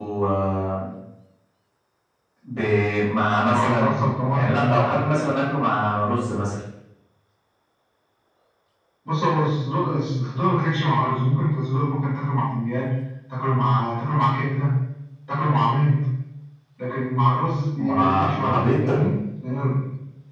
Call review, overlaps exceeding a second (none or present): present